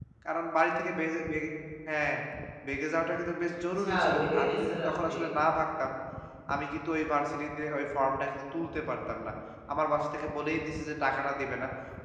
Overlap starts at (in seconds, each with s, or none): 3.8 s